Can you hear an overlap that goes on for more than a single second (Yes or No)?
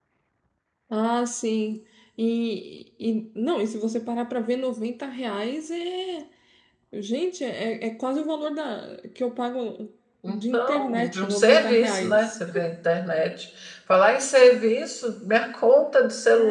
Yes